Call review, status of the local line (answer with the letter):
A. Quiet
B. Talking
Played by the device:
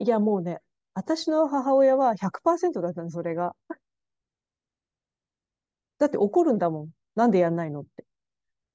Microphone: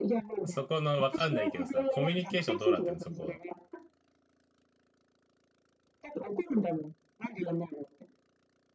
B